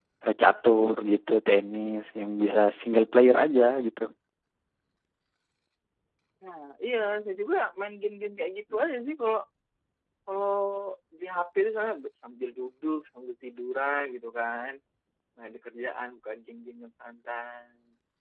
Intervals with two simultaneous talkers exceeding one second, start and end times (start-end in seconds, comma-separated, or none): none